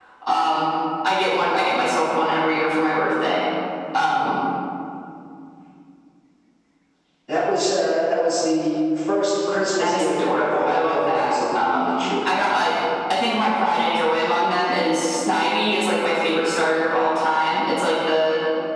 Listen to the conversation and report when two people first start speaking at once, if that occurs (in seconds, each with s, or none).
9.8 s